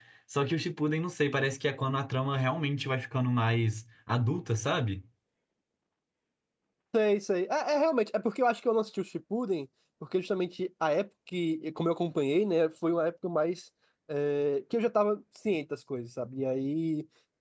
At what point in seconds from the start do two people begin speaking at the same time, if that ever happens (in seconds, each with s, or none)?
none